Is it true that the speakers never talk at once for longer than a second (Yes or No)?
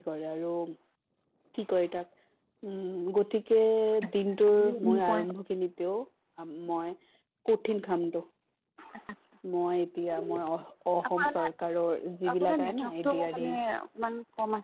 No